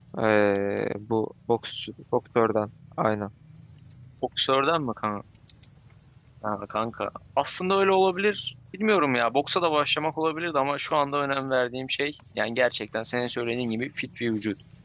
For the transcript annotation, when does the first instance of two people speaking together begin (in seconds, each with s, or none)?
none